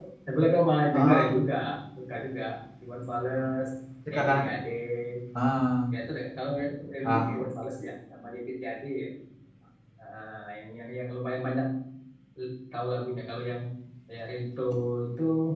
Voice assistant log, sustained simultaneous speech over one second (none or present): none